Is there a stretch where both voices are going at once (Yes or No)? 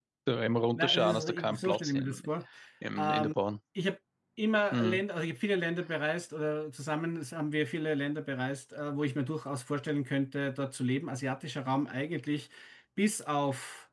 Yes